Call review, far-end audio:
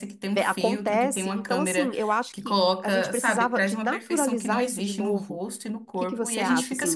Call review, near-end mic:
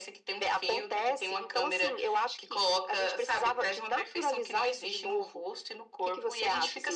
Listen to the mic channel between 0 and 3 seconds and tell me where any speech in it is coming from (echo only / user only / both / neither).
echo only